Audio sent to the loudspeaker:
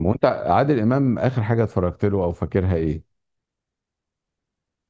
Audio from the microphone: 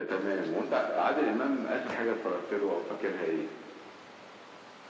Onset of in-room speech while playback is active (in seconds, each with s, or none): none